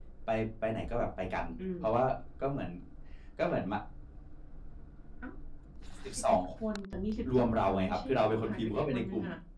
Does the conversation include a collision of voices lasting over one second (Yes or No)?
Yes